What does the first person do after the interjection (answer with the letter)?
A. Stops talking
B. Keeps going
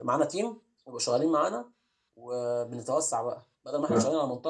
B